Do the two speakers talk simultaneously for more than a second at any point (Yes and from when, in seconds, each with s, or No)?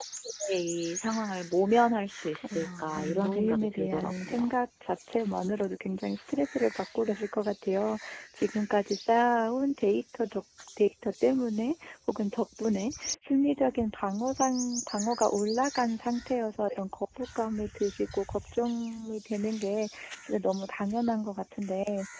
Yes, from 2.4 s